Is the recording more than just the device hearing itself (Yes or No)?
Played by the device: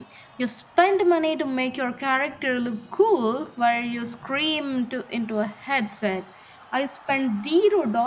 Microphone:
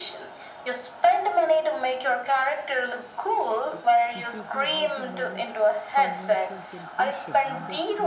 Yes